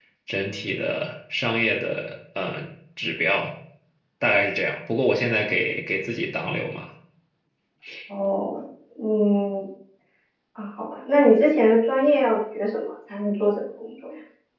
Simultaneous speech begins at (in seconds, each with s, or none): none